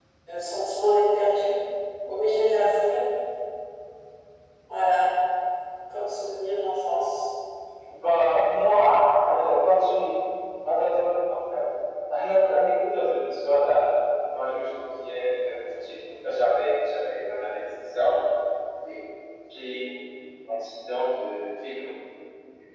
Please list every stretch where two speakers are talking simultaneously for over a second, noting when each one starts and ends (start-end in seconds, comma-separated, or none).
none